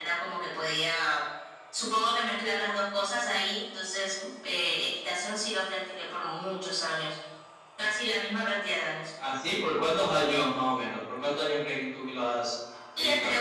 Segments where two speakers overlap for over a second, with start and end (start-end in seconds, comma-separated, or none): none